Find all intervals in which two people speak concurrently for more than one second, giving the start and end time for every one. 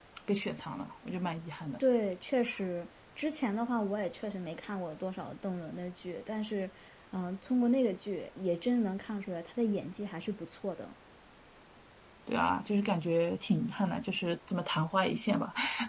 none

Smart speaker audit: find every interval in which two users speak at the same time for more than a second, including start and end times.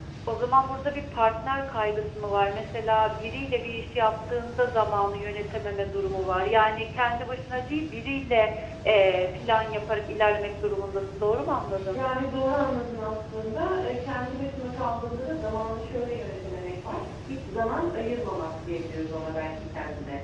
none

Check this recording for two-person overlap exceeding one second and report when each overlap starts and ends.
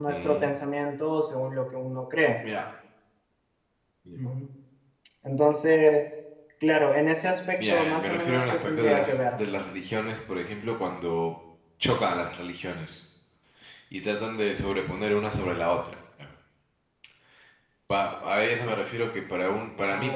7.7-9.4

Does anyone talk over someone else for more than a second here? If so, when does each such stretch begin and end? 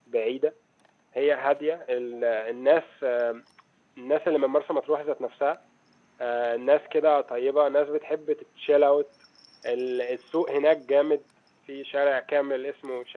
none

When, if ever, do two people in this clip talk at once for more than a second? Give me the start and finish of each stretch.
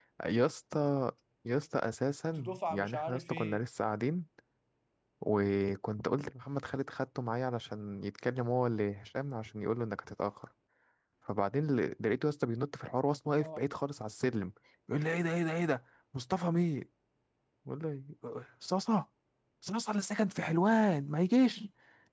2.2-3.6

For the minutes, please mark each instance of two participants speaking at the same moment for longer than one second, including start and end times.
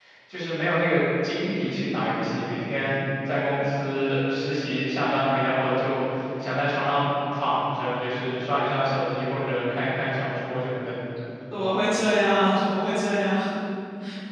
none

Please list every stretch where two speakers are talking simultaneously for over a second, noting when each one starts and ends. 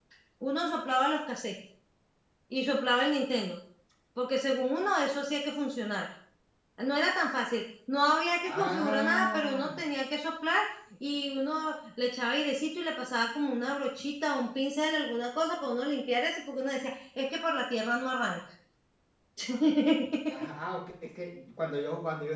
8.4-9.8

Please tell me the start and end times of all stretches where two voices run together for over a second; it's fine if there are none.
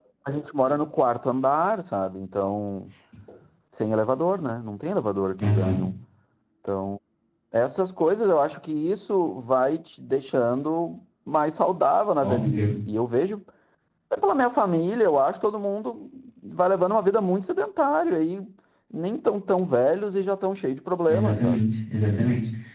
none

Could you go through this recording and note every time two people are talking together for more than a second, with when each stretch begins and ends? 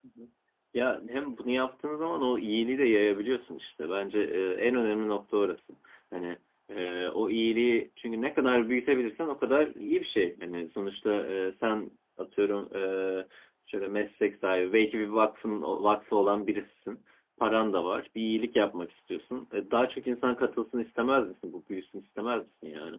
none

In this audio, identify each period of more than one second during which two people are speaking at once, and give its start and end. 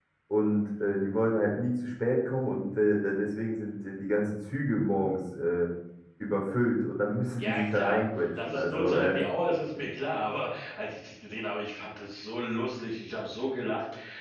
7.4-9.2

